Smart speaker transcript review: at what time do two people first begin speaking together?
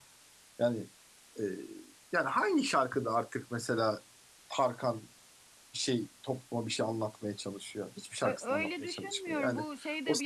8.2 s

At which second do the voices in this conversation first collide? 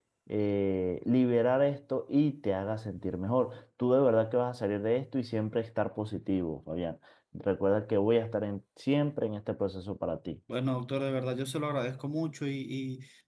none

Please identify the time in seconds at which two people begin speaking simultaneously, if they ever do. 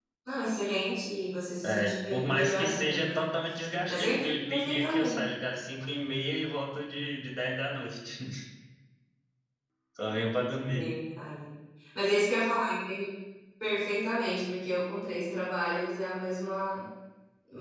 1.6 s

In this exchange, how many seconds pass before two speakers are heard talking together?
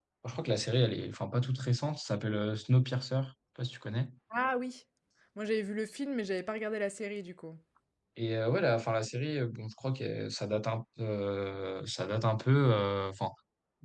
none

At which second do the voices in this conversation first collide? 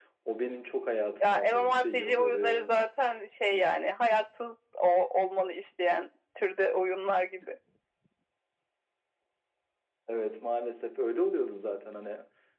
1.2 s

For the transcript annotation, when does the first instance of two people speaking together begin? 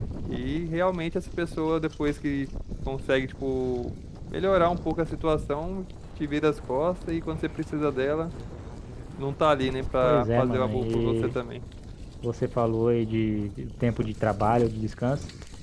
10.0 s

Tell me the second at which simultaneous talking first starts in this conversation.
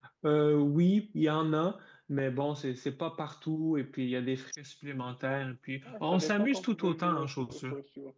5.8 s

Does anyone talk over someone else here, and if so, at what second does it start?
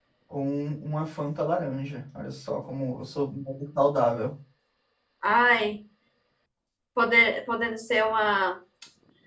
none

